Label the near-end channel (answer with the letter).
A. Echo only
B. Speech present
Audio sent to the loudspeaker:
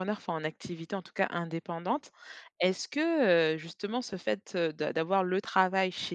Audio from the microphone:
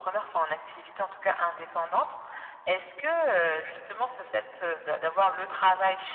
A